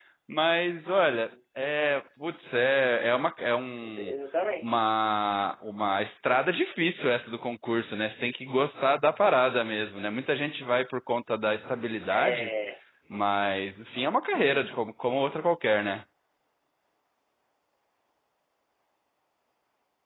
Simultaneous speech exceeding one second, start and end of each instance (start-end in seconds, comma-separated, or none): none